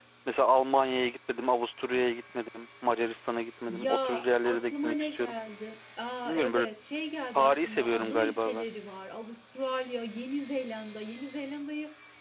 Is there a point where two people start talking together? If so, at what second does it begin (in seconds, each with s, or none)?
3.7 s